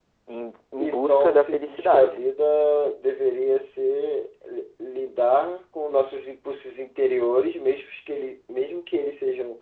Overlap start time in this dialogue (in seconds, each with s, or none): 0.8 s